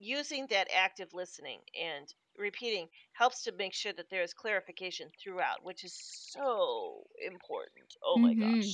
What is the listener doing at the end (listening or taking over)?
taking over